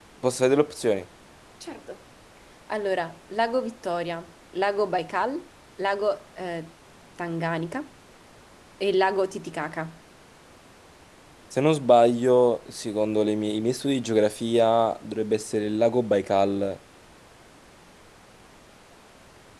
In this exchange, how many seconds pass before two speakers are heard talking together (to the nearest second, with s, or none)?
none